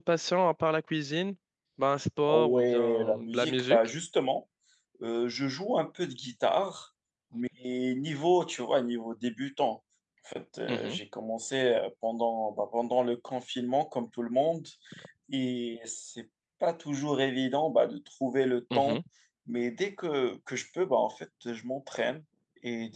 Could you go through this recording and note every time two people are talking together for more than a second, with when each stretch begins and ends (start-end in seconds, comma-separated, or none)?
2.3-3.8